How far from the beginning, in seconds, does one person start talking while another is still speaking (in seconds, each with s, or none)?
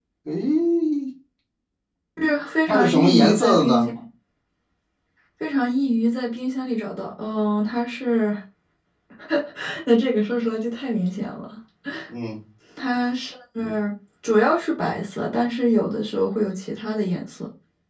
2.7 s